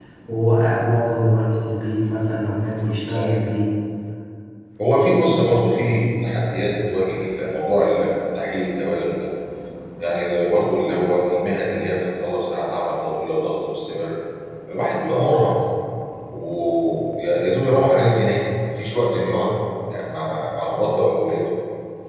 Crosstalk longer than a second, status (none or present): none